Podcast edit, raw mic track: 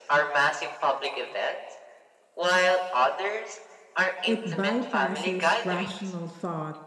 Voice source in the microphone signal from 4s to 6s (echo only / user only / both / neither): both